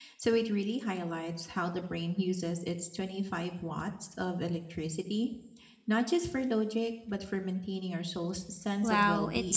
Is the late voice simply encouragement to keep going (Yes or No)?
No